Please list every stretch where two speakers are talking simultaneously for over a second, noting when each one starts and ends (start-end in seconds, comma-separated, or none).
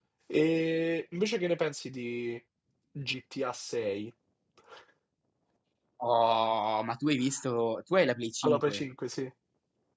none